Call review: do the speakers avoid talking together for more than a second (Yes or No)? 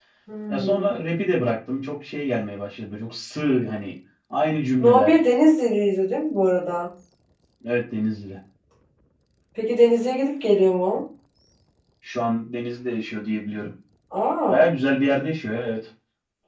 Yes